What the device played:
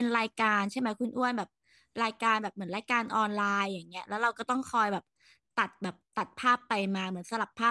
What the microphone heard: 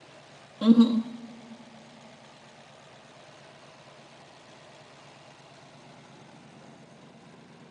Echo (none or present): none